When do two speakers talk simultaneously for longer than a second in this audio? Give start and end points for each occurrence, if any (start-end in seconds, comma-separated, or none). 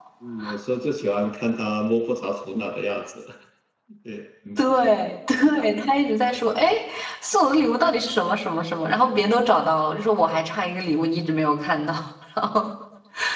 none